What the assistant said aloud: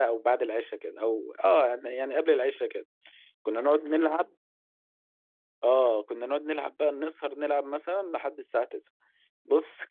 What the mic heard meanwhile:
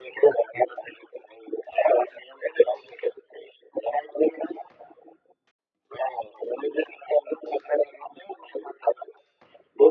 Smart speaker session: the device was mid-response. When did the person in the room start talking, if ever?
none

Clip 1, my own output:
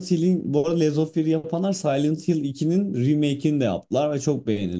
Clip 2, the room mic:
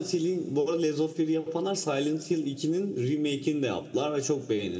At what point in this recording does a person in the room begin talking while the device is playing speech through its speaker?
none

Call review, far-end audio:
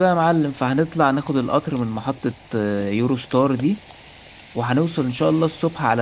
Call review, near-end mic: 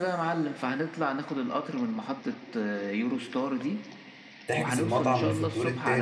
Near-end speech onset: 4.5 s

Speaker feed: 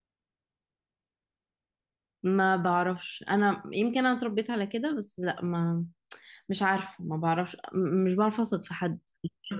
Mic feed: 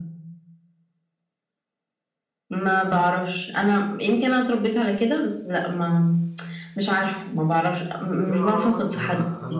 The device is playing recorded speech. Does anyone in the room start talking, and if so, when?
8.2 s

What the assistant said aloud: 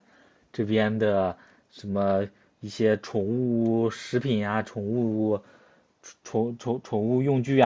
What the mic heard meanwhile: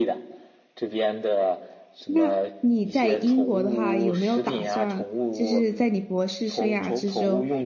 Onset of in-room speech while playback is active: 2.0 s

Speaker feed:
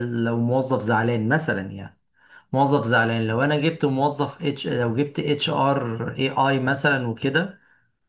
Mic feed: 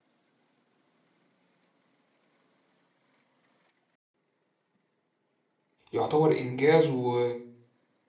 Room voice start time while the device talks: 5.9 s

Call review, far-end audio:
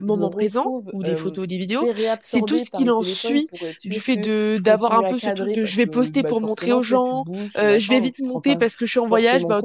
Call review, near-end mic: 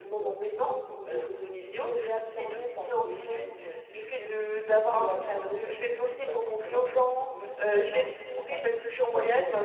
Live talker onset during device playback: none

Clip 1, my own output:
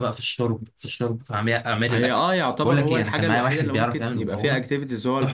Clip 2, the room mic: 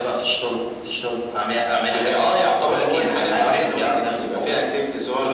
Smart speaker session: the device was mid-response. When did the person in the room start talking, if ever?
none

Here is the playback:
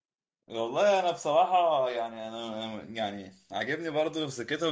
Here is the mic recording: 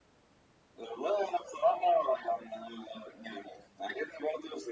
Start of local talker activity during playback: none

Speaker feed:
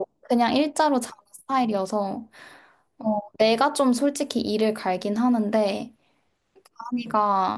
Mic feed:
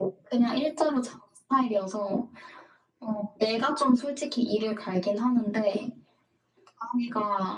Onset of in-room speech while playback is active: none

